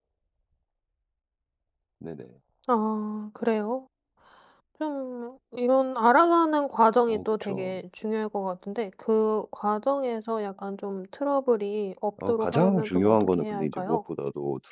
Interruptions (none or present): present